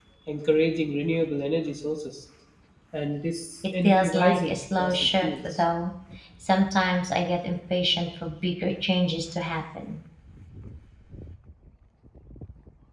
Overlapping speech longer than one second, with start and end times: 3.8-5.6

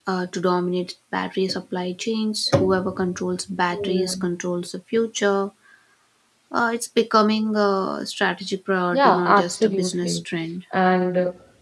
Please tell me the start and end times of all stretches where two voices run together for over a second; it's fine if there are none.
8.9-10.2

